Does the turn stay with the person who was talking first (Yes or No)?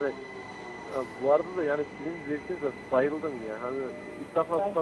Yes